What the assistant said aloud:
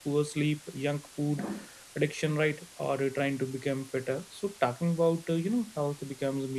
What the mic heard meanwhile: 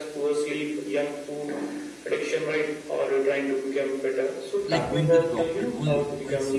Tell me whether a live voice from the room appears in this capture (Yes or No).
Yes